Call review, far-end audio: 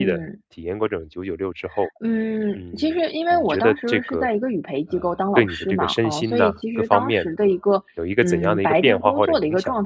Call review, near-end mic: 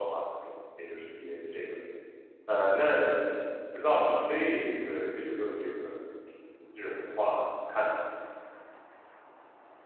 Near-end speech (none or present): present